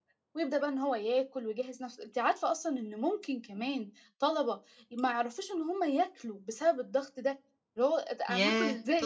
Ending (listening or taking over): taking over